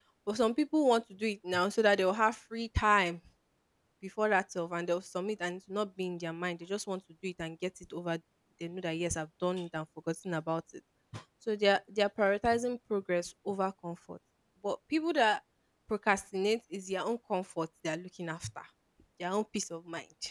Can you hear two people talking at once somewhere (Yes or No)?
No